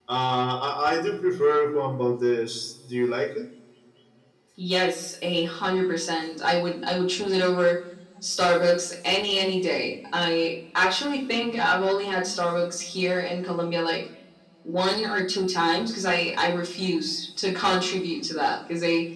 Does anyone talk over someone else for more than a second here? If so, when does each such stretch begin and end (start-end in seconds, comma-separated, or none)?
none